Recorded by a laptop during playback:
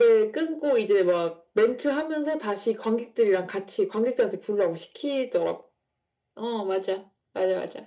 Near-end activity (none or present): none